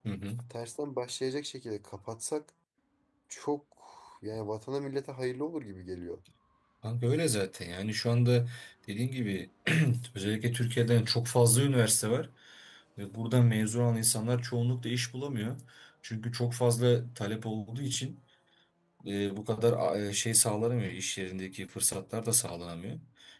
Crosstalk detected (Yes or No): No